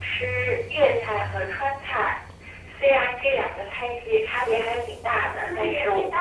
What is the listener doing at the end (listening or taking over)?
taking over